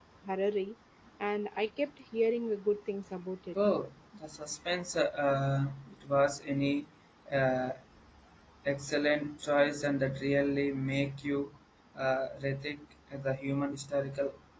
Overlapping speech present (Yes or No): No